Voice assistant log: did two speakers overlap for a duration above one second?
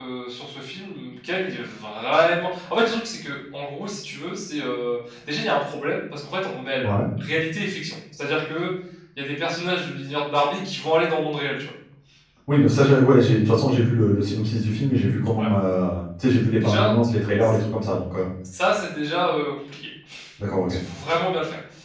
No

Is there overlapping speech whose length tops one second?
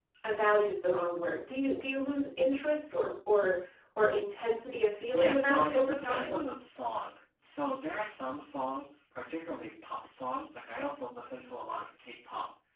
Yes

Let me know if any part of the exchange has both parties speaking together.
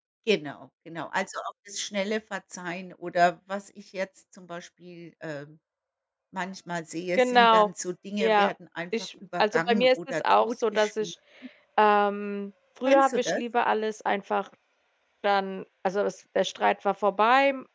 Yes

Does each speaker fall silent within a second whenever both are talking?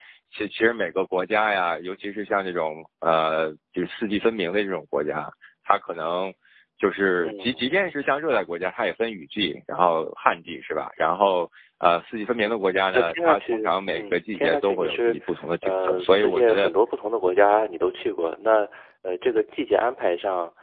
No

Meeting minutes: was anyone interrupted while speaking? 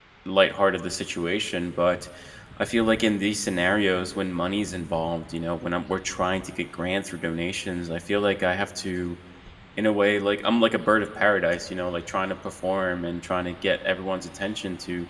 No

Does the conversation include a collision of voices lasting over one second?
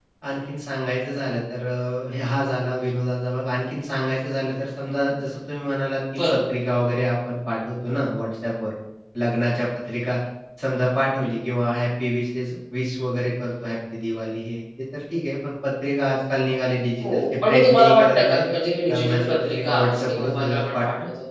Yes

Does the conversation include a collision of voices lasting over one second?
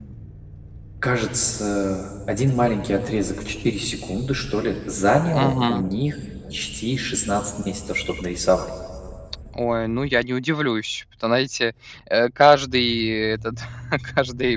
No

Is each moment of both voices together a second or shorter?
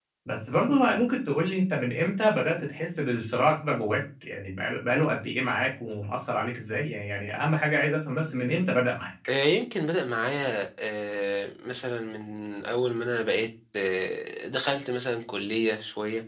Yes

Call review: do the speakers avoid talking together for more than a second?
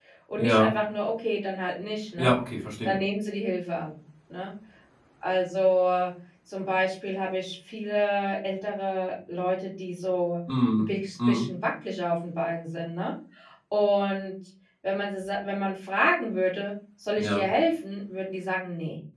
Yes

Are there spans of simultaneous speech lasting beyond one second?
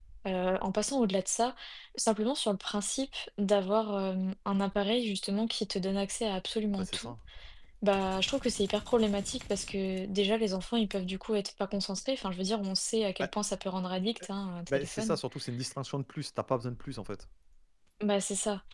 No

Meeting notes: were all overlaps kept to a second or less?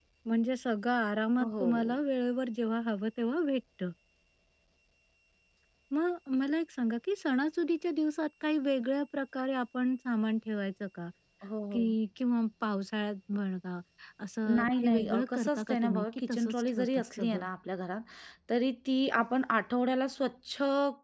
No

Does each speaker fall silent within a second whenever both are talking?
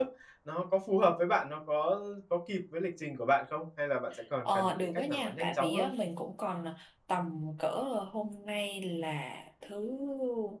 No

